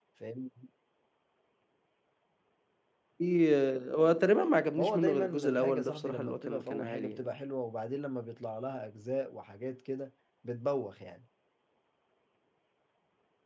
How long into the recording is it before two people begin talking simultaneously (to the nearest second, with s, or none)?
5 s